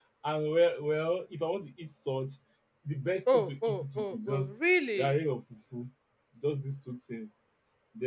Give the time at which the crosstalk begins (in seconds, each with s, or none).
3.3 s